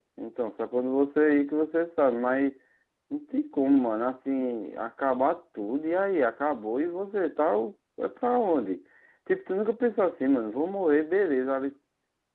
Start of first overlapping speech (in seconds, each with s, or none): none